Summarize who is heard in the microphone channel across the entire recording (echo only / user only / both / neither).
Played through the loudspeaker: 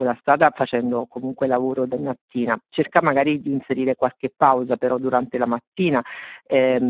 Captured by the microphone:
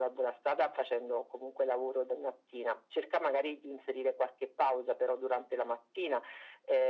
echo only